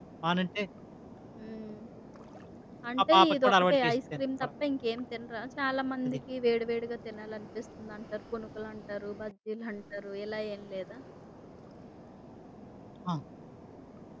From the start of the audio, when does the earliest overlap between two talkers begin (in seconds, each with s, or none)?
3.1 s